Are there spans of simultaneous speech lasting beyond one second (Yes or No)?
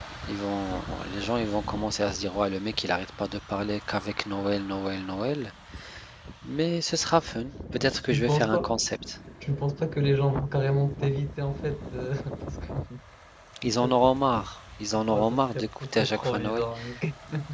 Yes